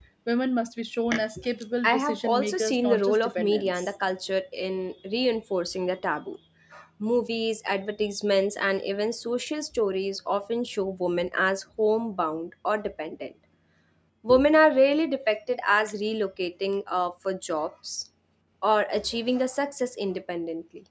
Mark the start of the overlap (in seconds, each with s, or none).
1.8 s